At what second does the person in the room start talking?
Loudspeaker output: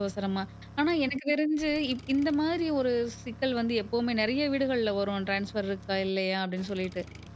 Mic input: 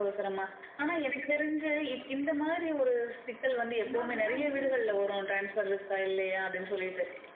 3.6 s

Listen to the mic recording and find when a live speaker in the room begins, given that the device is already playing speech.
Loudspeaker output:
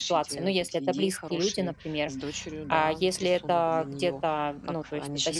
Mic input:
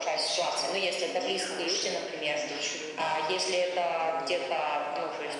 none

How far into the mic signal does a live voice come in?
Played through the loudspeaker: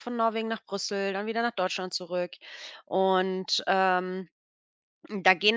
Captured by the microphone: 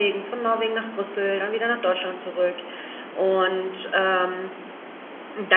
none

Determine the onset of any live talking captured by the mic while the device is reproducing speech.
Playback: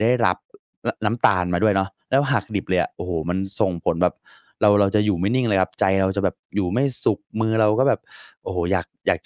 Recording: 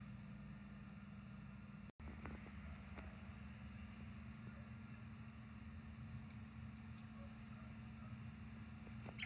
none

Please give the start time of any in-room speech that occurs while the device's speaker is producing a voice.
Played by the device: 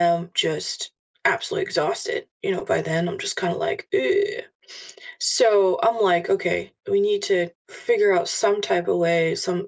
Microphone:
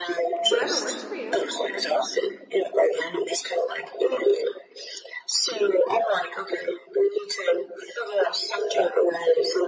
0.4 s

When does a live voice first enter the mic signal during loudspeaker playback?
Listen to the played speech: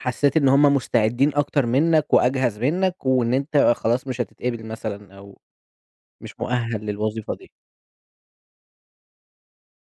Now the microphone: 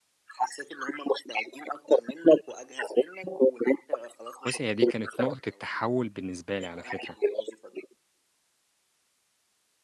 4.5 s

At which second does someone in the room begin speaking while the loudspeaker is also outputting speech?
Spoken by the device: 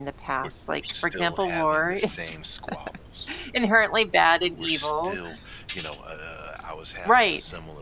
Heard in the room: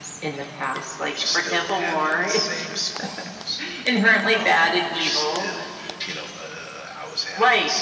4.4 s

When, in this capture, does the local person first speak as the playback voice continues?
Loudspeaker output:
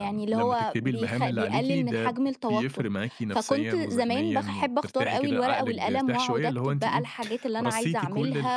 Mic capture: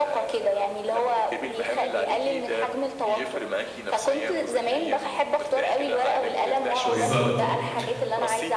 6.8 s

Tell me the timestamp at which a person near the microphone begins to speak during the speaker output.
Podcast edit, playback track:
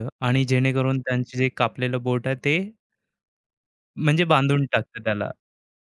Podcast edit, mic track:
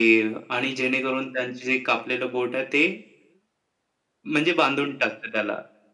none

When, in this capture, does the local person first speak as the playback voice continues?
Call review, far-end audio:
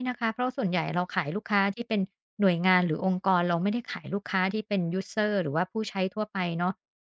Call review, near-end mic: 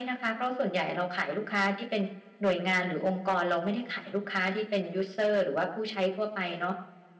none

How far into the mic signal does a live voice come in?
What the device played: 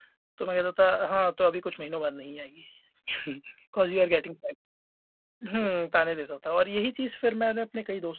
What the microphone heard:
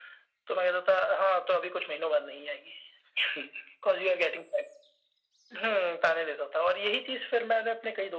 none

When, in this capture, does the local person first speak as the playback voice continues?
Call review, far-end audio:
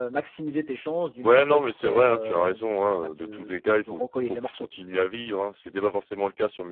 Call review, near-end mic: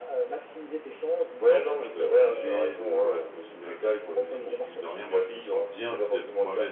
1.4 s

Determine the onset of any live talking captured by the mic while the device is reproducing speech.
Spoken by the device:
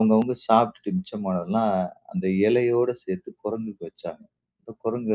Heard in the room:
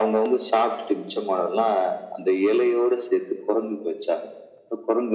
none

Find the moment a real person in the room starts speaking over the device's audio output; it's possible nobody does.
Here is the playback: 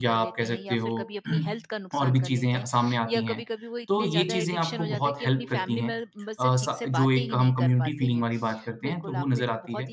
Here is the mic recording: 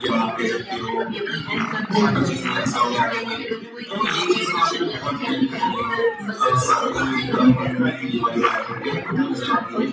1.9 s

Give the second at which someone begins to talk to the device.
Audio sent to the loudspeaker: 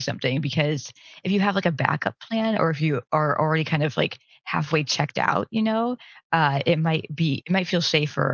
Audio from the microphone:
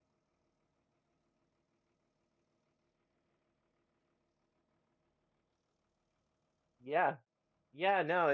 6.8 s

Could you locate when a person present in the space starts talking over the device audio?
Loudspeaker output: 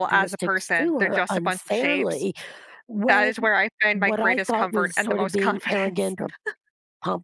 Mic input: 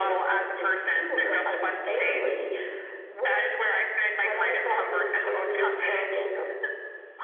none

